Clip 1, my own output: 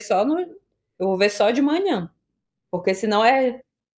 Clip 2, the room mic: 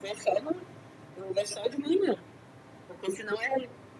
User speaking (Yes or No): No